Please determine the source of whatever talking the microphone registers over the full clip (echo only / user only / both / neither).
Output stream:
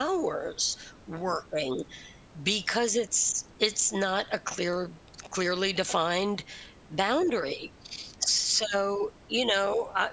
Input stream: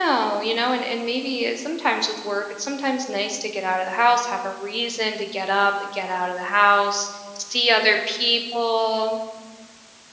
user only